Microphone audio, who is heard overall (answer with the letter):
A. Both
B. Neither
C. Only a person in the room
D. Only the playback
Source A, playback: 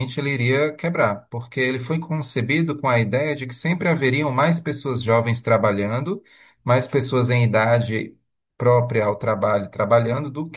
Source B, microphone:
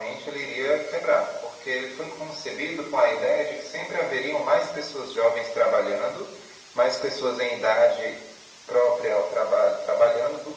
D